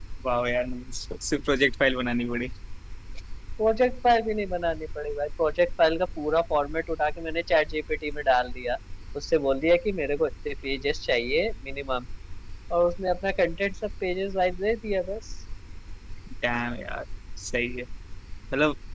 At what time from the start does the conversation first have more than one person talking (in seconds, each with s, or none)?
none